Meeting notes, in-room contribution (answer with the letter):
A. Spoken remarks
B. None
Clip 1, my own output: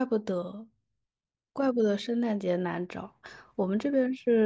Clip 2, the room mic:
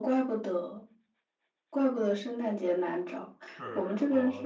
A